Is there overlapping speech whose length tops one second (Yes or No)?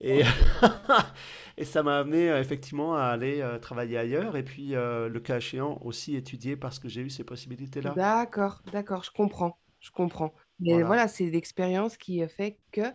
No